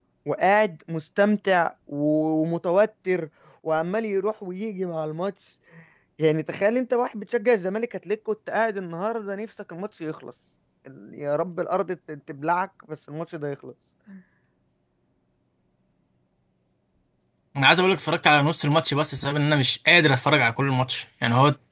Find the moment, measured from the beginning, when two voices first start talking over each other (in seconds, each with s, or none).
none